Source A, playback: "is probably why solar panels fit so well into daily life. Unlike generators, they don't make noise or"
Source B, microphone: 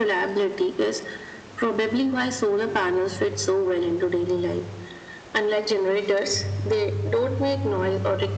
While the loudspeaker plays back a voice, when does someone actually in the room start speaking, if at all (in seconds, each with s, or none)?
none